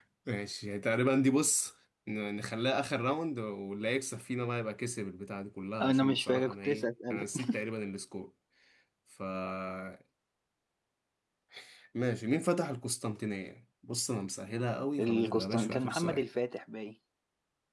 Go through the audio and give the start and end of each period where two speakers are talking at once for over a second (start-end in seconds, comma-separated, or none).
5.8-7.5, 15.0-16.2